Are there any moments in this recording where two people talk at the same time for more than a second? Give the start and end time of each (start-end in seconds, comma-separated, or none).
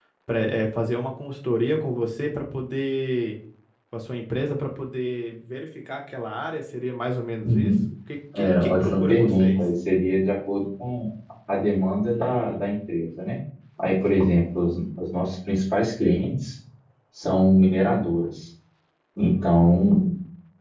8.4-9.6